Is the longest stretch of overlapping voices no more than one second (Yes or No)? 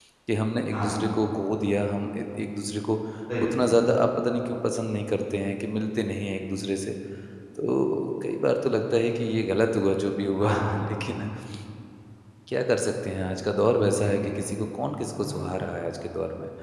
Yes